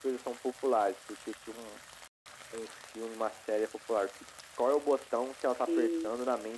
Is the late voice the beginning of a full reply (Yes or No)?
No